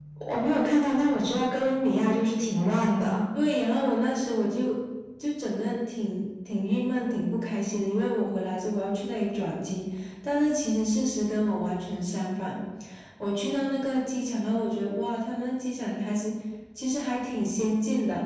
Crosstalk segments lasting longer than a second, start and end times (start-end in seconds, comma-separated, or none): none